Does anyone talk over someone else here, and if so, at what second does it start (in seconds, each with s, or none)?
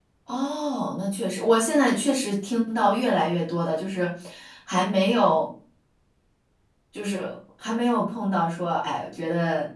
none